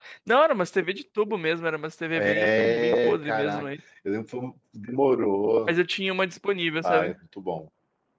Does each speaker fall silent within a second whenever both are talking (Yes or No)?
No